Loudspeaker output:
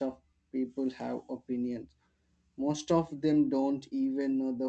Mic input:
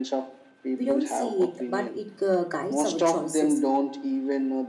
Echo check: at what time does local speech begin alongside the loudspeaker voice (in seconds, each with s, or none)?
0.8 s